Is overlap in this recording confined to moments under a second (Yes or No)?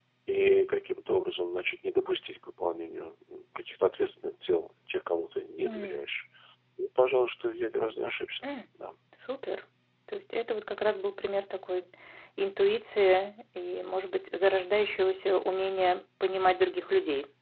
Yes